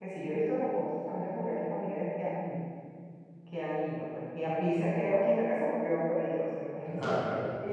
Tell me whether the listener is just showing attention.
Yes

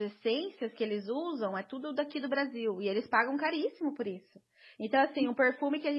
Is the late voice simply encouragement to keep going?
Yes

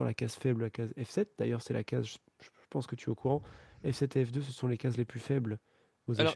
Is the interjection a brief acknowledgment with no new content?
No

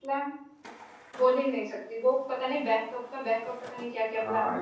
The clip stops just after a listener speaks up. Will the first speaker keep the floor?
No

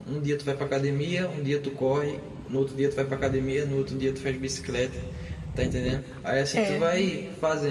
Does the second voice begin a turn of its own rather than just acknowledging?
No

